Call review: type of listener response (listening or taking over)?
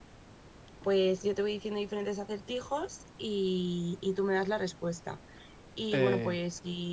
listening